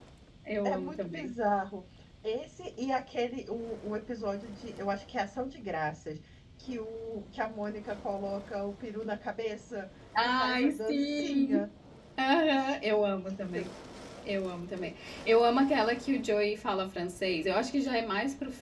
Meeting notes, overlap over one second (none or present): present